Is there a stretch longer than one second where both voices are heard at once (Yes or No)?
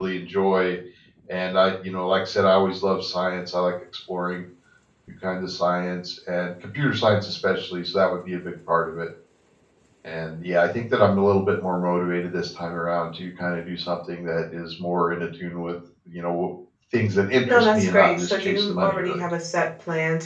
Yes